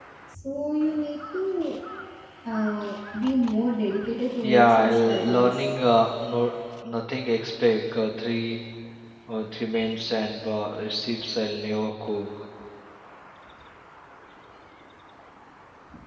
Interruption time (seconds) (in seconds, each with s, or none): 4.4 s